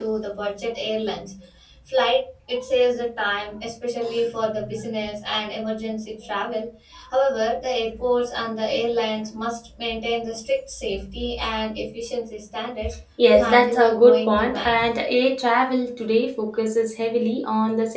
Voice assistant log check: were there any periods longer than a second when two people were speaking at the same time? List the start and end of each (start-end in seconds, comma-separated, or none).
13.3-14.8